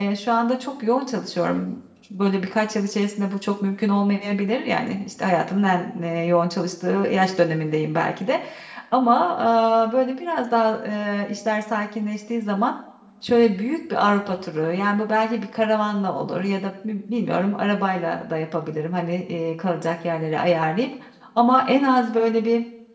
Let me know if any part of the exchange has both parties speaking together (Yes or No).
No